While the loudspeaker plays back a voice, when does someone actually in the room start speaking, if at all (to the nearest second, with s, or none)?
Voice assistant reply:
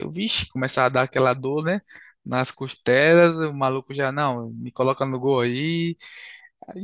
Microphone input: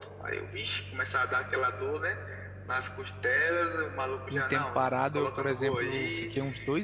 4 s